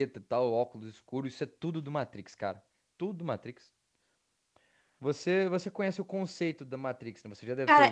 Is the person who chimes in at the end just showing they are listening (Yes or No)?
No